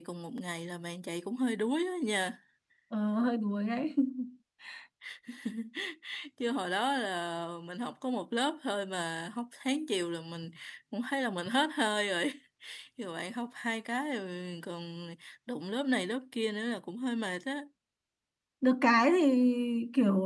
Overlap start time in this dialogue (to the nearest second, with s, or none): none